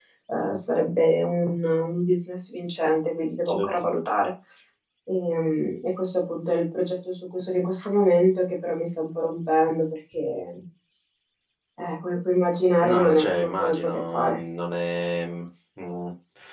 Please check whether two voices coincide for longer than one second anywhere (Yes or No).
Yes